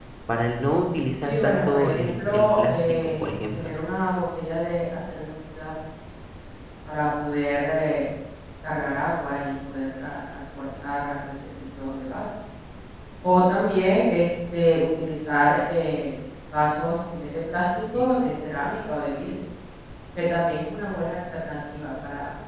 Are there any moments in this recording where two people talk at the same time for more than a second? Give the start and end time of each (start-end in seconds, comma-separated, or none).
1.2-3.7